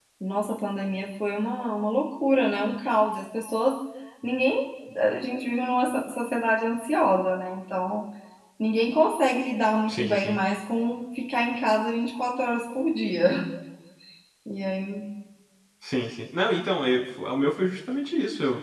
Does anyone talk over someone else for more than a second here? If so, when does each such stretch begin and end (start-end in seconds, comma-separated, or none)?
none